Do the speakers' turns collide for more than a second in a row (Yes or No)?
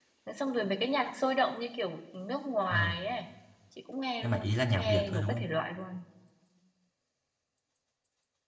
Yes